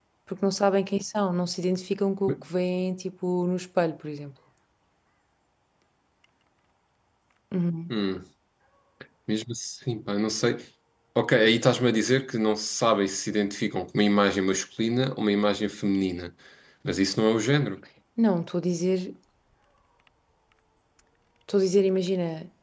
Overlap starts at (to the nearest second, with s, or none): none